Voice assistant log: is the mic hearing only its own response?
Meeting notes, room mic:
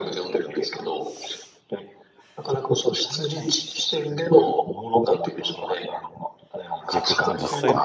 No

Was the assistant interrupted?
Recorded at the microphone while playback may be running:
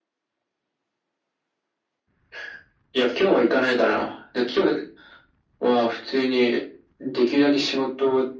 No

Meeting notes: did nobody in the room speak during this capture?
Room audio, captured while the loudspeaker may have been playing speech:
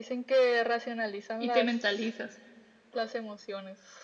No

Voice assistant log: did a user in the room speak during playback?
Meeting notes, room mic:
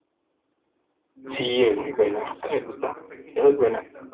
Yes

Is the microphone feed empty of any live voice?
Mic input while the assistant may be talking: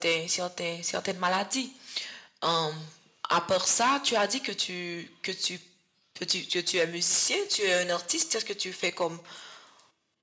Yes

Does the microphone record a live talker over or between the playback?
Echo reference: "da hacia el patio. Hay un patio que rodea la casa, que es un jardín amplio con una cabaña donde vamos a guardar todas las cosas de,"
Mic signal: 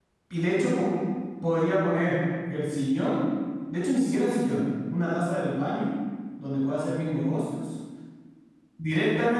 Yes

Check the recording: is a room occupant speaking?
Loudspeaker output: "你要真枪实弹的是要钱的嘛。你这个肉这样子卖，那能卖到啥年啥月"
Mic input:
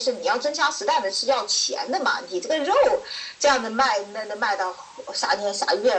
No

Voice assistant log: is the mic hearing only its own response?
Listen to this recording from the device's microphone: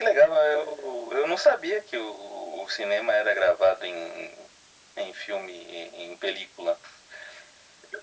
Yes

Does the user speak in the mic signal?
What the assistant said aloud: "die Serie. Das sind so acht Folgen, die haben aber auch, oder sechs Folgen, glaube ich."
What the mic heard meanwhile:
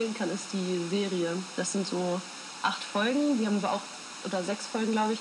No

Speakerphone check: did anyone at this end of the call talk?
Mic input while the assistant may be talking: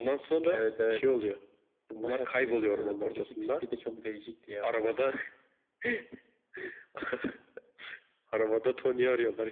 No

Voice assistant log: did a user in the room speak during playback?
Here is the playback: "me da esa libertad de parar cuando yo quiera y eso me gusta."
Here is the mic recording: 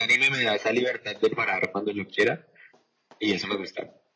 No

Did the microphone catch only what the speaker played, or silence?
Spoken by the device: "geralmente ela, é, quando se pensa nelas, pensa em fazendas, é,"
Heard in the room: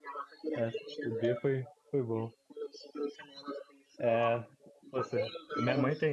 No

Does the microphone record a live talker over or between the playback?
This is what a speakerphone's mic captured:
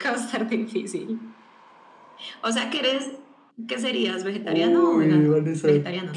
Yes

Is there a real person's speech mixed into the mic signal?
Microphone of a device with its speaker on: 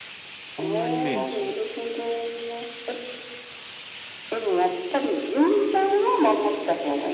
Yes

